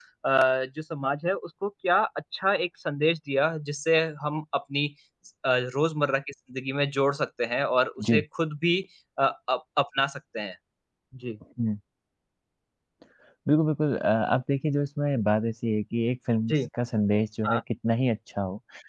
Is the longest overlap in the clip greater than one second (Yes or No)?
No